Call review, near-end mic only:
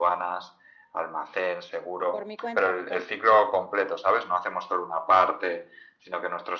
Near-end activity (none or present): present